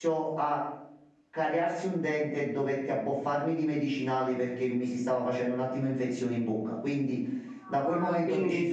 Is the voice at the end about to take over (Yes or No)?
No